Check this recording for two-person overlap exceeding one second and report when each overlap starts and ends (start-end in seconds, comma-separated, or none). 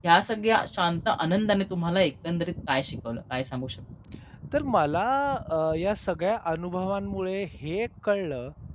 none